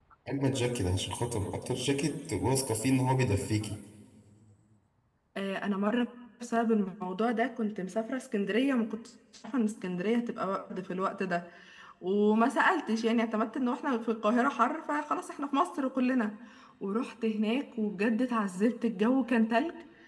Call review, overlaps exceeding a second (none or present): none